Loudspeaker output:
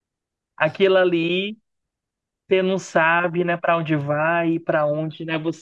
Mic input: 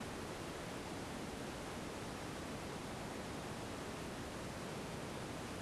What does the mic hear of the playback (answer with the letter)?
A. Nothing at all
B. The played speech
A